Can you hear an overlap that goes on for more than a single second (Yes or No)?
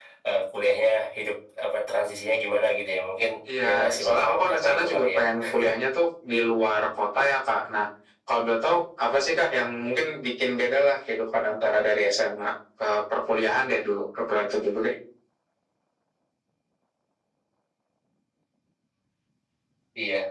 Yes